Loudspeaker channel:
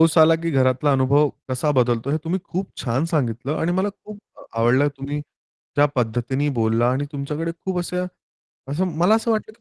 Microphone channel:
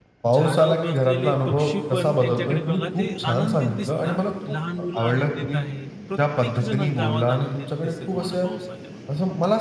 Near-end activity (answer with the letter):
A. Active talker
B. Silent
A